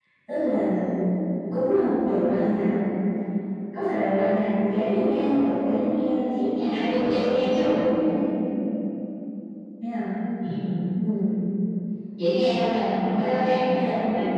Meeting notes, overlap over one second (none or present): present